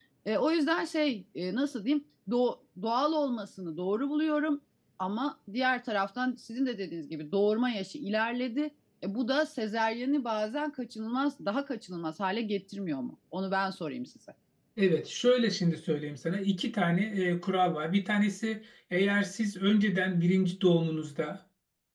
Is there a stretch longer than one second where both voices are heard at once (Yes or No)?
No